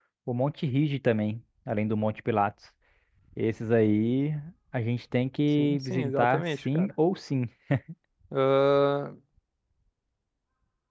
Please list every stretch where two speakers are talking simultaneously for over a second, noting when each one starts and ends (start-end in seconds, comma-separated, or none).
5.6-6.9